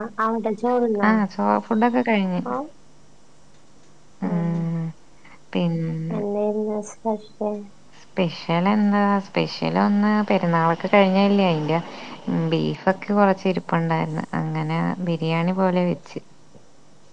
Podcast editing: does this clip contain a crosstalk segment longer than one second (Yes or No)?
No